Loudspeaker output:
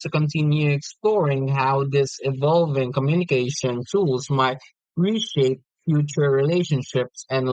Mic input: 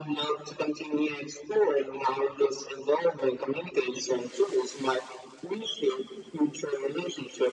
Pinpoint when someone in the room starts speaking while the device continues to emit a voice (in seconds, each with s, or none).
none